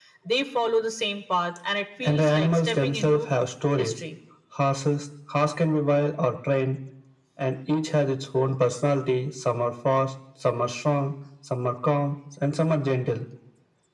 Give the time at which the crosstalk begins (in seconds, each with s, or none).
2.0 s